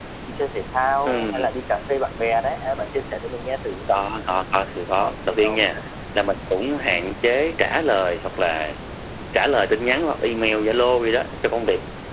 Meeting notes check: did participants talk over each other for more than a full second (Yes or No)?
No